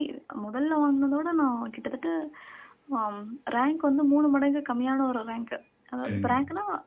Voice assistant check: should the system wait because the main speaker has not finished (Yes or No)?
Yes